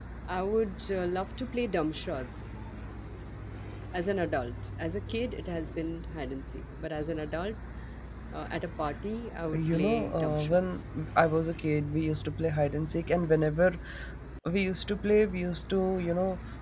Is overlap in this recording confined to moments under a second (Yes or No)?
No